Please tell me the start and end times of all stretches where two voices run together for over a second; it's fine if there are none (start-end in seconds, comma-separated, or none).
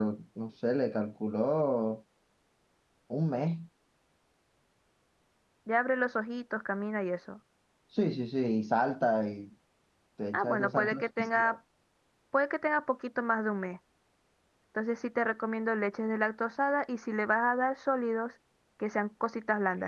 10.3-11.6